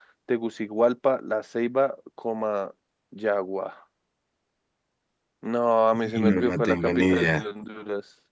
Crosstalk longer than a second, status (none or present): present